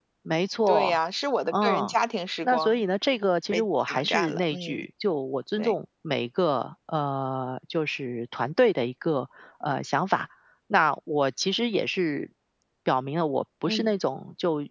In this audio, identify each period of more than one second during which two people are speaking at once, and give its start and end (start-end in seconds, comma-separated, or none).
3.5-4.8